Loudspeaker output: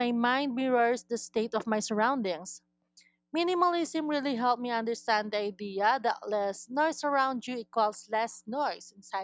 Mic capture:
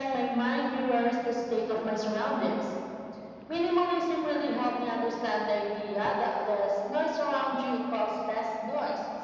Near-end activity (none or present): none